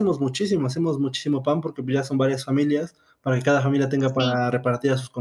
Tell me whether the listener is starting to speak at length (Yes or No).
No